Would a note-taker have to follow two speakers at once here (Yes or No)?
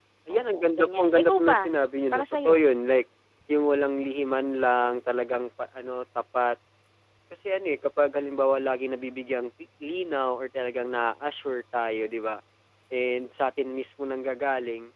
Yes